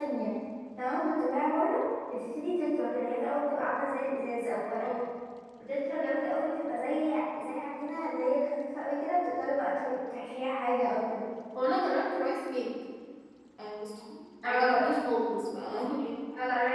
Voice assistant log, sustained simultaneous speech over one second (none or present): none